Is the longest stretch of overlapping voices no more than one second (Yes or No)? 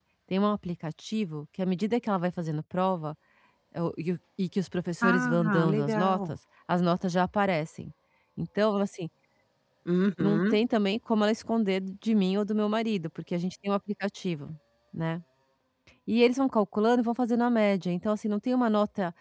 No